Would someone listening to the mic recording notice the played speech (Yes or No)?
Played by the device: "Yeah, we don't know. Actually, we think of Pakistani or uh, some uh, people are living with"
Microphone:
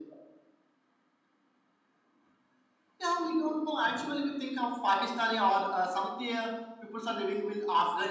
Yes